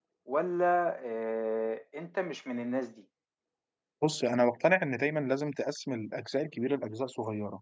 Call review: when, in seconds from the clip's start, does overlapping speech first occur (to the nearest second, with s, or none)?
none